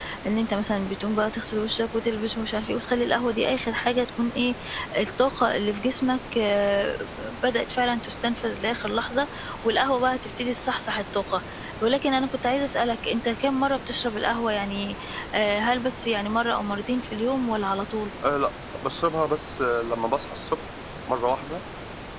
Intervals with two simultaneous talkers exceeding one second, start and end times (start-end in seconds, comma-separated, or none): none